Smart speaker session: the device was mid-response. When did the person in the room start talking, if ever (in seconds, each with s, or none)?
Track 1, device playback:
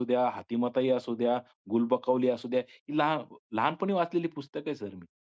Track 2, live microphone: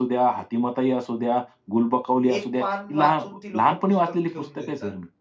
2.2 s